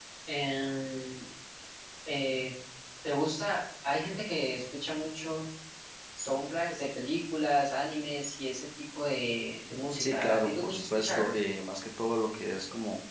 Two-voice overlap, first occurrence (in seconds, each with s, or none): 10.0 s